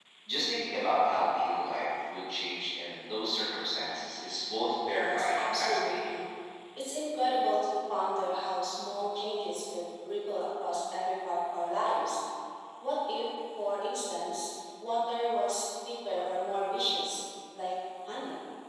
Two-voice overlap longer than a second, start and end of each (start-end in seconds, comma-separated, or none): 4.9-6.2